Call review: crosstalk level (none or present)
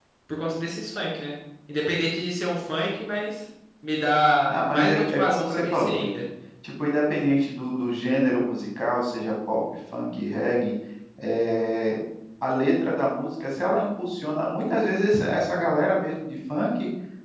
present